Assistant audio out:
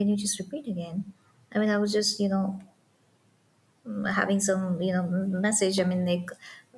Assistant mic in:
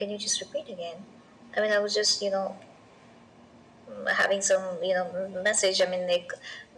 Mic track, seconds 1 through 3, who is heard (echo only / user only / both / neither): echo only